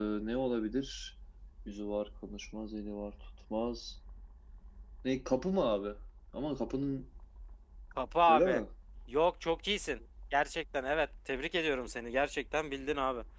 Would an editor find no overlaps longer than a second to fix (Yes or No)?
Yes